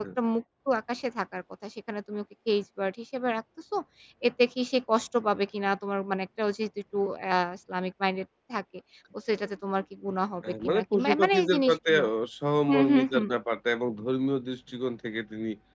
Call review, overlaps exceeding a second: present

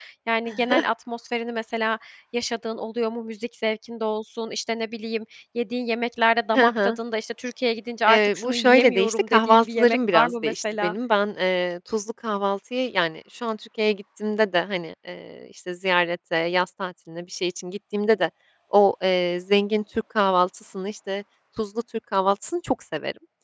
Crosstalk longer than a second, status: present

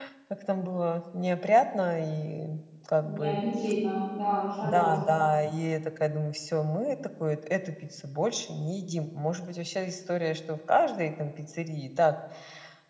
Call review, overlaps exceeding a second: none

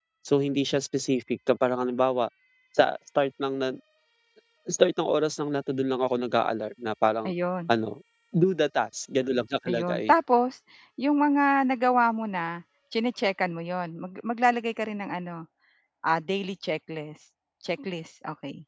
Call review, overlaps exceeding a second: none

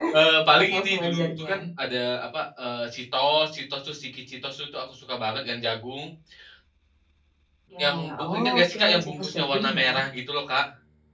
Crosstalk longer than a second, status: present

